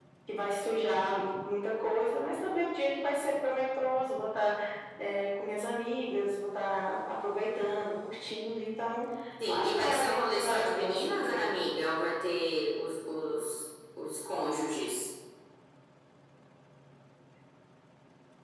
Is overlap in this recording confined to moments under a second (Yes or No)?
No